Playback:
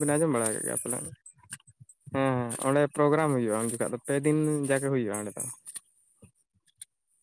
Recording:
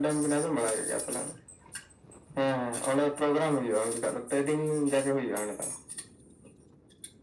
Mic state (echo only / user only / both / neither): echo only